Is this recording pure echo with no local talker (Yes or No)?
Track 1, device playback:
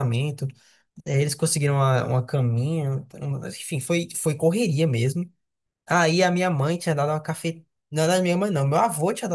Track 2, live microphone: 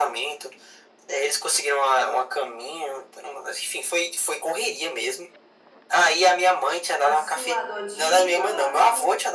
No